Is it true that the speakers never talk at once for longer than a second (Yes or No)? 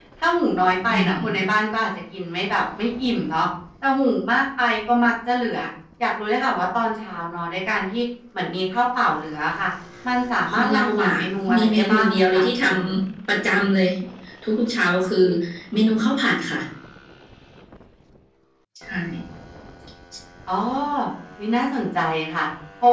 No